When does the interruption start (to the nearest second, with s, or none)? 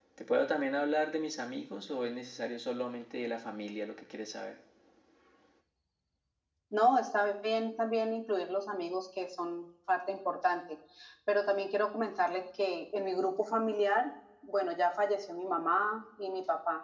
none